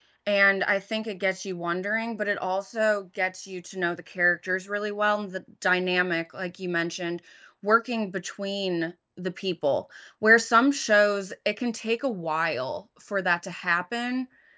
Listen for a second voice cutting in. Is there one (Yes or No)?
No